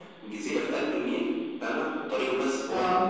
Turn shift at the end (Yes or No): No